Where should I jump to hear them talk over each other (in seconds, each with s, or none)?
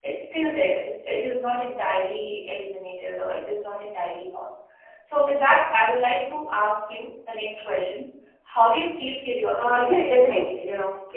9.6 s